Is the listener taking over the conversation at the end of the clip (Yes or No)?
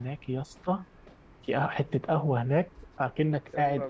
No